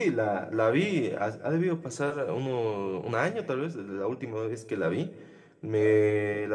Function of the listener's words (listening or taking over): listening